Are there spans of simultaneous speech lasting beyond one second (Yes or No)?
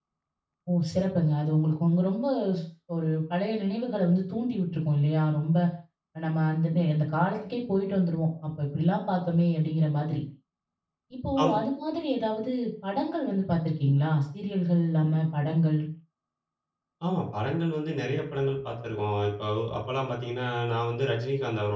No